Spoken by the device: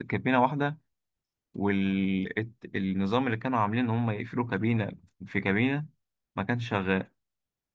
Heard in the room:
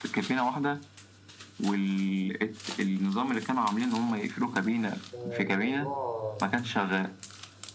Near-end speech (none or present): present